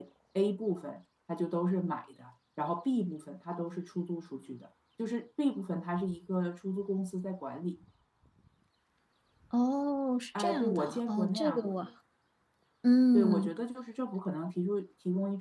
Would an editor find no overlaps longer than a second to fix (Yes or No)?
No